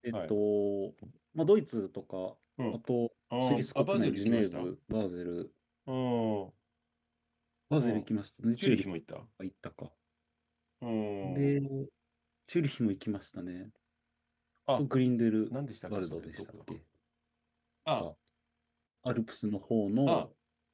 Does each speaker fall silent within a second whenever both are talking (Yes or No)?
No